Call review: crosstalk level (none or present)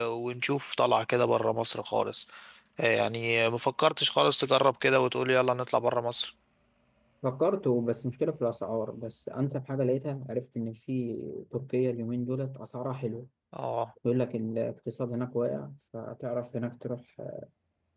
none